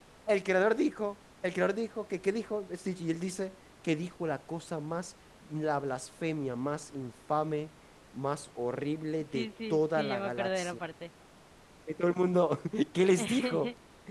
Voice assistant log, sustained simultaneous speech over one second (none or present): present